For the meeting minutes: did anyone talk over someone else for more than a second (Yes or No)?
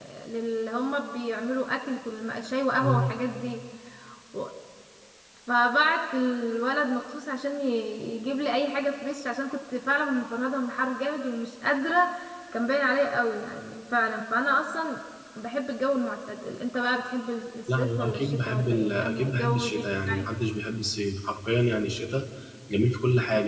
Yes